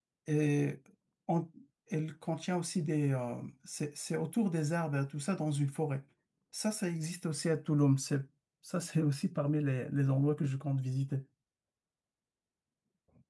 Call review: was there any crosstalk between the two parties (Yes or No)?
No